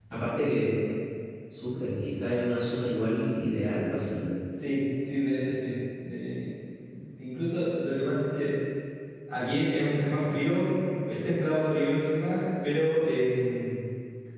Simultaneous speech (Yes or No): No